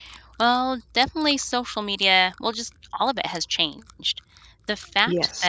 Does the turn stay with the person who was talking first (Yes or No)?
Yes